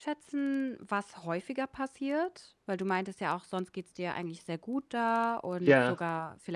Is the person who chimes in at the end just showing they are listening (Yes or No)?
Yes